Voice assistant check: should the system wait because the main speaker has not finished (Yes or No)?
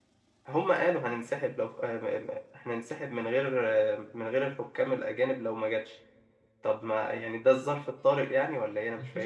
No